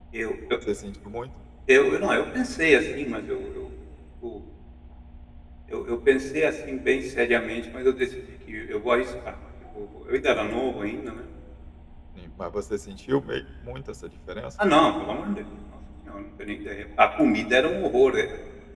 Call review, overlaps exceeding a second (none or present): none